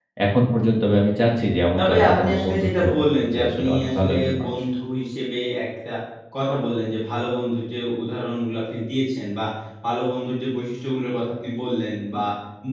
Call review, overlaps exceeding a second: present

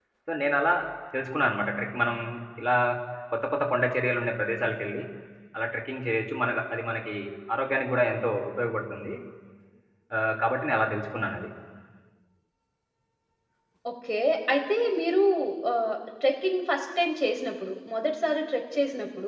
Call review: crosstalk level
none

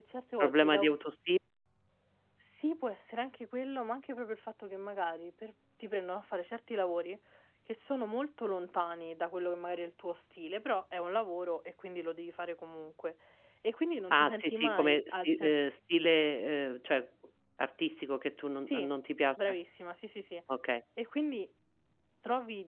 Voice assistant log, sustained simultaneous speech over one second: present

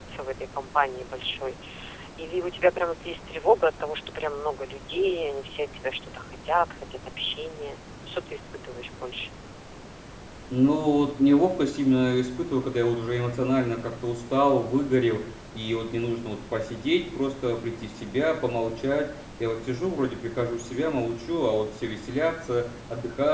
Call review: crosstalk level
none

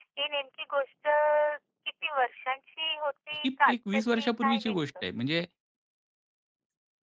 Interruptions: present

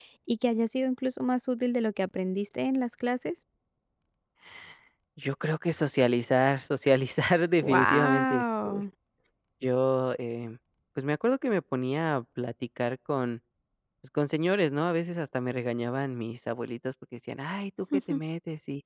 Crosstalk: present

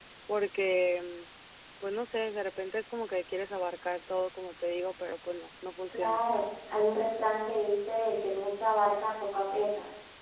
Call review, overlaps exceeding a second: none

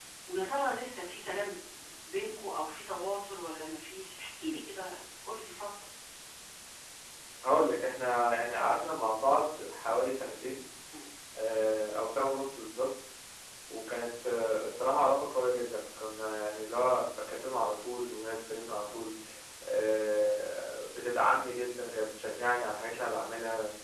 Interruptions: none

